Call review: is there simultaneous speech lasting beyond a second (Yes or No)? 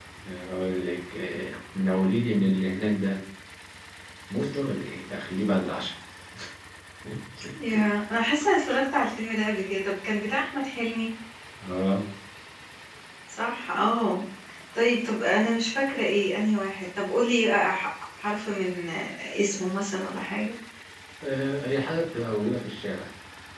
No